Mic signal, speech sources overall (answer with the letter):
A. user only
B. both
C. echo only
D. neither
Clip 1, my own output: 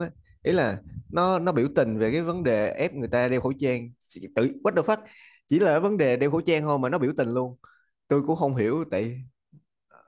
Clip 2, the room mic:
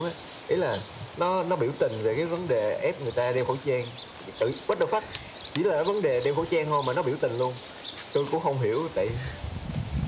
C